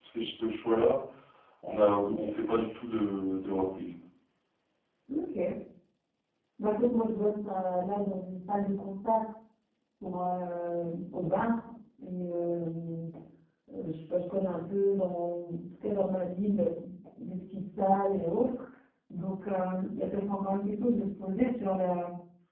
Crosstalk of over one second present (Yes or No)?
No